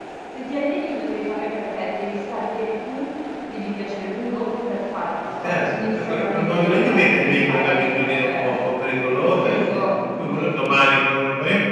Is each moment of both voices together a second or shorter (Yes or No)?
No